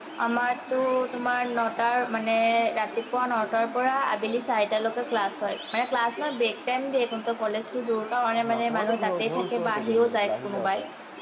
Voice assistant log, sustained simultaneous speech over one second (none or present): present